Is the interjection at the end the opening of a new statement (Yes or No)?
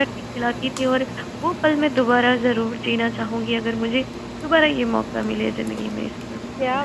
Yes